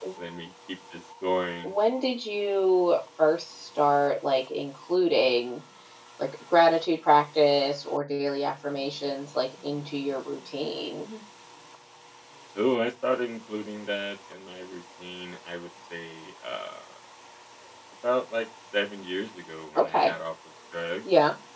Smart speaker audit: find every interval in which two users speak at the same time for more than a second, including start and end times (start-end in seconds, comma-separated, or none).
none